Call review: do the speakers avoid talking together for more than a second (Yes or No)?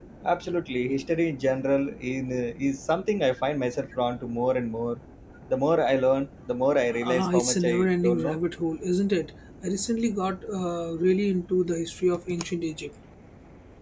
No